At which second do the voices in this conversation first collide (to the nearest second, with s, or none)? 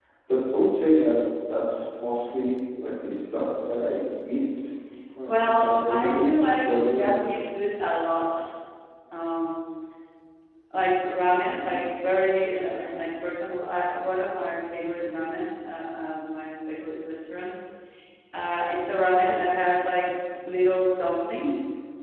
5 s